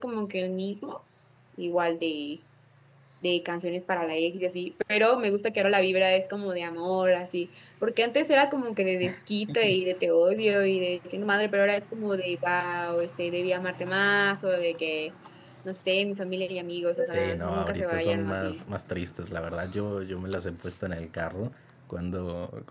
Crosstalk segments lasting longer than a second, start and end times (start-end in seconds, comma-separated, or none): 17.1-18.6